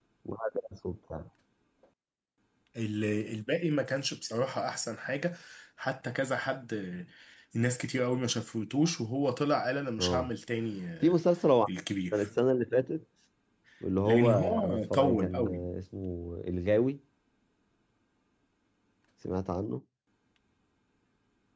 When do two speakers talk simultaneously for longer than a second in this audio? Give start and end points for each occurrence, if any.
14.1-15.6

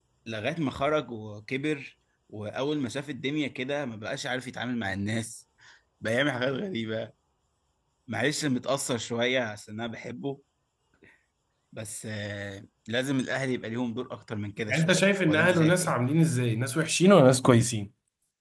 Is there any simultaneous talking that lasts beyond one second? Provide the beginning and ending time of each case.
14.7-16.0

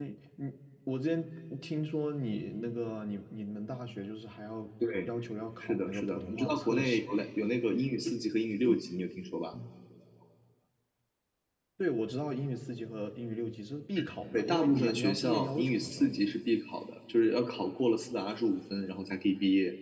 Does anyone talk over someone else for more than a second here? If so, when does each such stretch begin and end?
5.6-7.0, 14.3-16.2

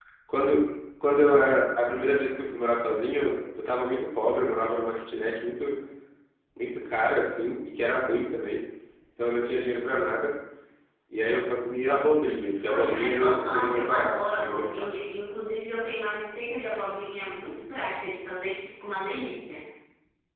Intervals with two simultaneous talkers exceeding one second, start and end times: 12.7-15.0

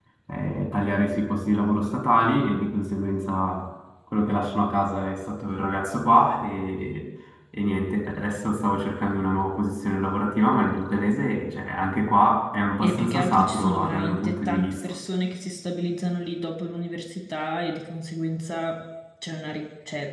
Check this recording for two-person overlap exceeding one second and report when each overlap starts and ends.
12.8-14.9

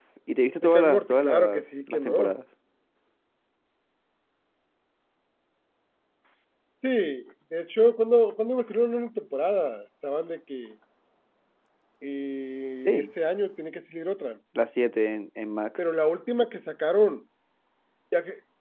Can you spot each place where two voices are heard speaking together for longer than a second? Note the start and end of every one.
0.6-2.3

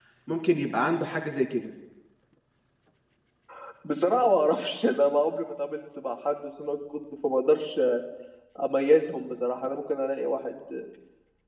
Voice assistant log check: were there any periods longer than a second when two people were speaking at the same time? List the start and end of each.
none

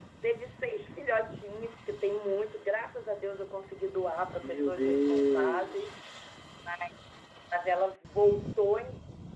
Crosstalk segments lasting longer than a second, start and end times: 4.4-5.9

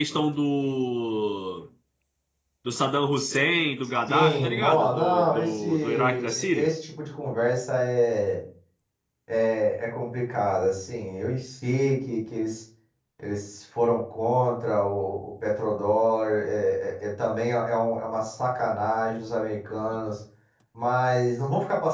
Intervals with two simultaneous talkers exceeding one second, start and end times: 4.1-6.7

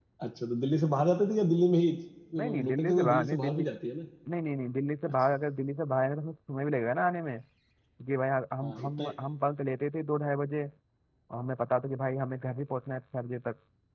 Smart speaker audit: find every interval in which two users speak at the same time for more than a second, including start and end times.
2.4-3.6

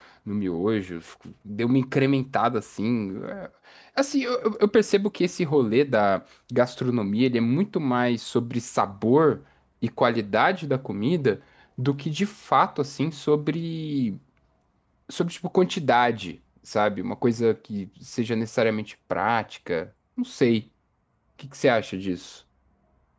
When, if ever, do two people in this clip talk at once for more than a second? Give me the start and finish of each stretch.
none

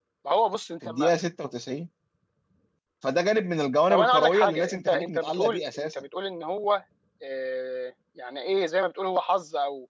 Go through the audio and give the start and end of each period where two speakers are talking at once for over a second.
3.9-6.0

